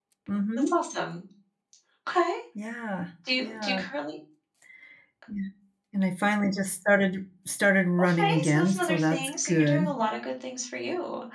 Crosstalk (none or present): present